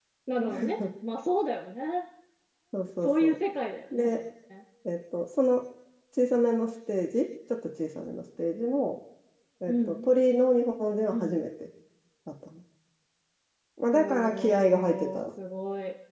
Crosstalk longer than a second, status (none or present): present